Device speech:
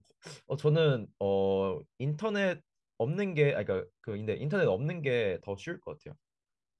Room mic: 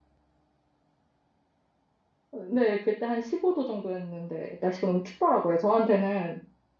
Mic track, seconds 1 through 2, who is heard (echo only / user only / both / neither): neither